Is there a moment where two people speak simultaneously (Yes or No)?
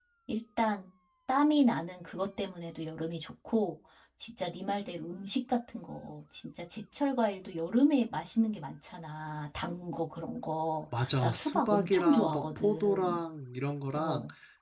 Yes